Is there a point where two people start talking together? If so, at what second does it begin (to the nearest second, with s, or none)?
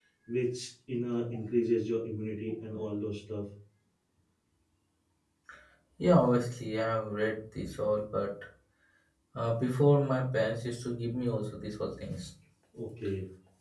none